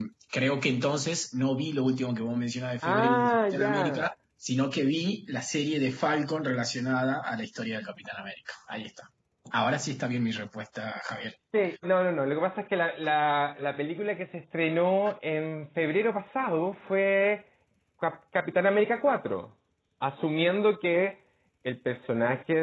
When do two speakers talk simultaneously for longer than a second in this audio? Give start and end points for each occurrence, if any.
2.8-4.0

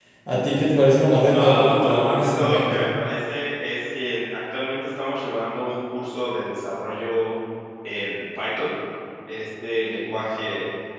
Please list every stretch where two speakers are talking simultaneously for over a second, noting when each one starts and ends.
1.3-2.8

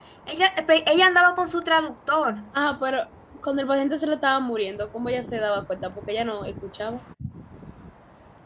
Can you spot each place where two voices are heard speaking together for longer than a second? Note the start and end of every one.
none

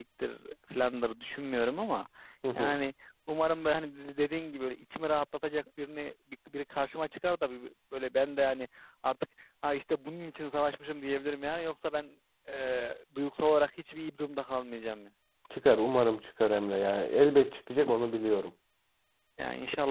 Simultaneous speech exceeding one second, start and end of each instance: none

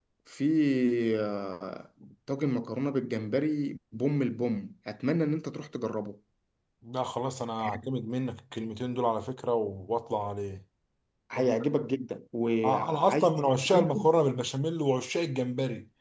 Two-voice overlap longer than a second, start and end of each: 12.6-14.1

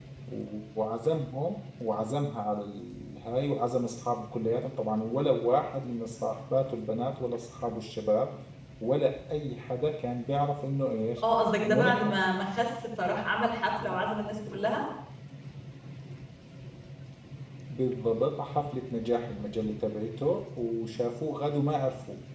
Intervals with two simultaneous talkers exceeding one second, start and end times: none

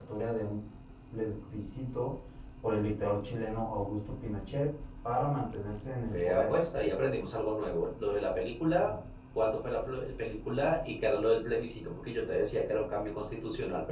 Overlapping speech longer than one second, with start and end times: none

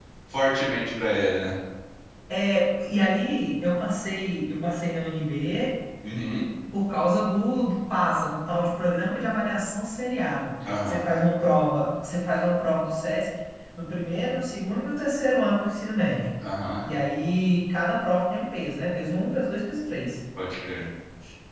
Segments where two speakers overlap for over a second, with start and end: none

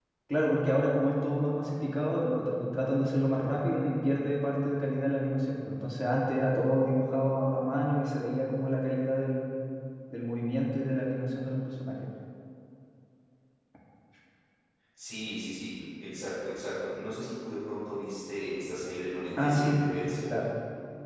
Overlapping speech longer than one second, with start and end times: none

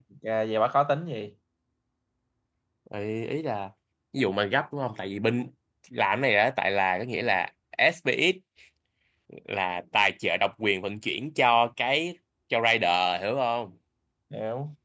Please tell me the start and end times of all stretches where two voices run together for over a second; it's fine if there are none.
none

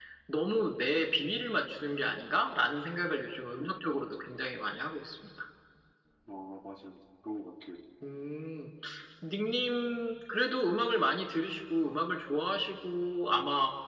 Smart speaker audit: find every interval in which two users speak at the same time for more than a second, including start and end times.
none

